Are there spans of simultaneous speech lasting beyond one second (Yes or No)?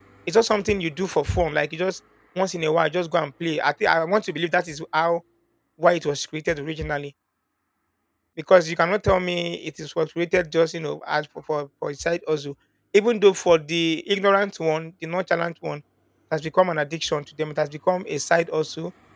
No